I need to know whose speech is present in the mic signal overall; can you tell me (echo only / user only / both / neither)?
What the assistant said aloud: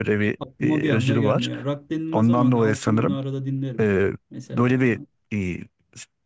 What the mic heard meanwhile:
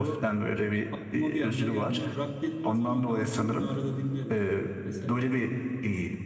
echo only